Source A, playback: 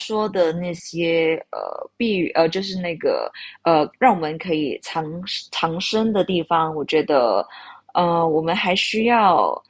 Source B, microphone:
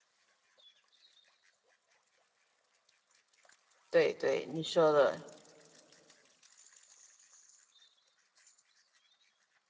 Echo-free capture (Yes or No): Yes